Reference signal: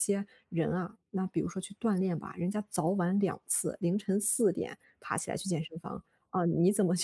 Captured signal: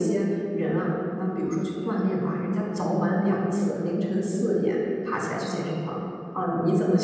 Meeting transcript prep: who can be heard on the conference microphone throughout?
echo only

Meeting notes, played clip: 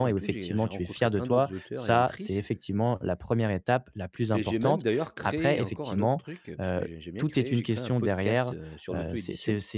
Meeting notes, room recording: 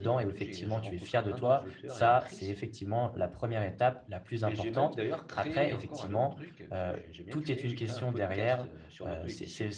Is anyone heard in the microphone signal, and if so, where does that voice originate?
echo only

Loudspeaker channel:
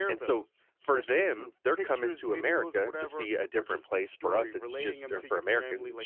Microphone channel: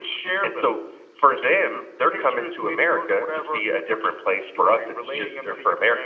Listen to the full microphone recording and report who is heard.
echo only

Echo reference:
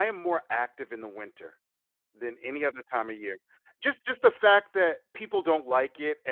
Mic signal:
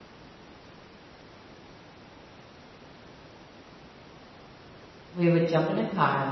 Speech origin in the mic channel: user only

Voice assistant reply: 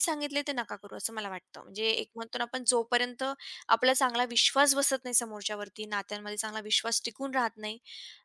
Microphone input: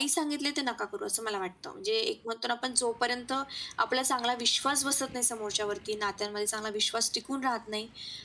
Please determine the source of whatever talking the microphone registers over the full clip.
echo only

